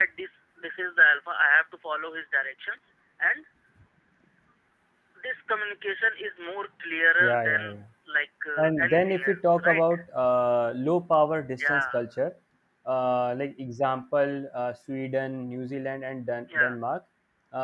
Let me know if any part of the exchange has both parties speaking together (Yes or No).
Yes